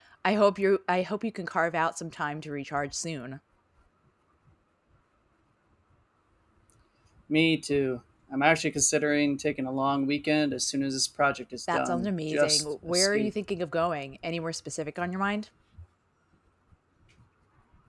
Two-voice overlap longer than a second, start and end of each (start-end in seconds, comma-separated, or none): 11.7-13.3